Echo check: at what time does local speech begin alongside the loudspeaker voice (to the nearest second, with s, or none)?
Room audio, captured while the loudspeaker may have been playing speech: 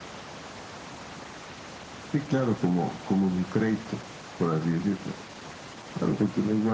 none